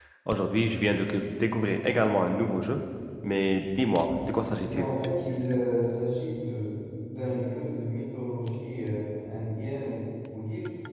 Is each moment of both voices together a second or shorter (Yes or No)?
Yes